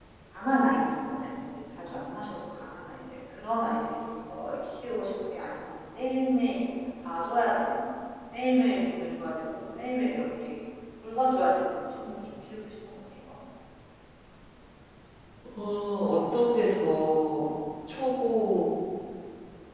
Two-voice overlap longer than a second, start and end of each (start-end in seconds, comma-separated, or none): none